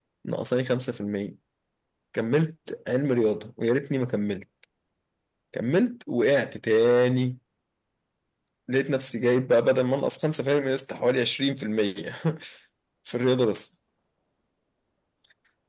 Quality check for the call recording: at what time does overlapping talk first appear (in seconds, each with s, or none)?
none